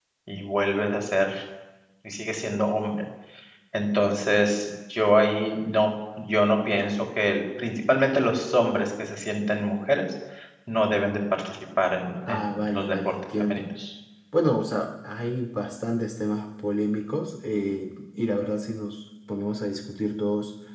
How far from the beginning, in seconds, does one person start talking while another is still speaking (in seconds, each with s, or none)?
12.3 s